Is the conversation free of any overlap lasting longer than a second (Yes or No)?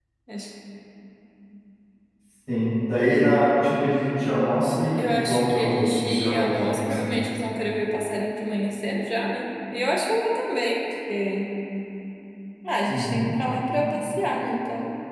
No